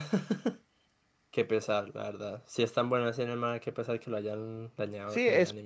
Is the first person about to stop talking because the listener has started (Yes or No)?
Yes